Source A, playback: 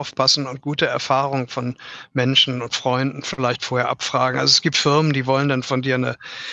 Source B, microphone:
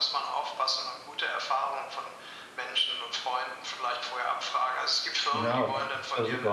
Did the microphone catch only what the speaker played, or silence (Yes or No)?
No